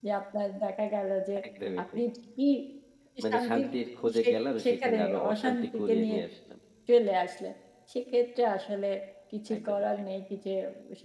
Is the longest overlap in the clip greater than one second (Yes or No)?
Yes